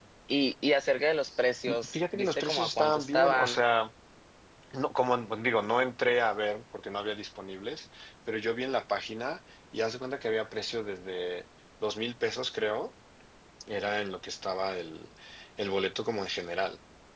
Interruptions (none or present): present